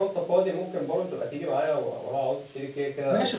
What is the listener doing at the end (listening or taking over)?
taking over